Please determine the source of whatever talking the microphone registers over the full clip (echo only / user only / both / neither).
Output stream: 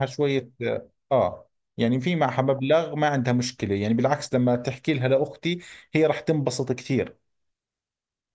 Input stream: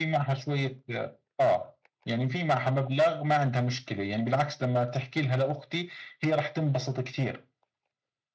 echo only